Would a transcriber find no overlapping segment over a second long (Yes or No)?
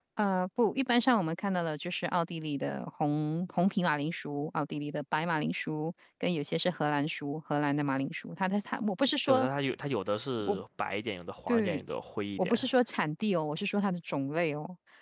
Yes